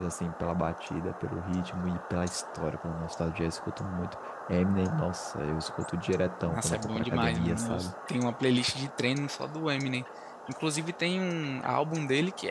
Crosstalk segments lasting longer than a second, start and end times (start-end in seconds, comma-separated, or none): 6.4-7.9